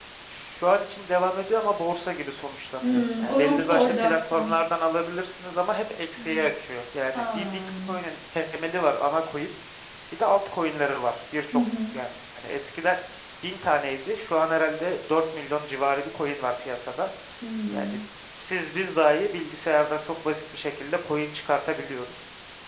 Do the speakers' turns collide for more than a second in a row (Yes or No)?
Yes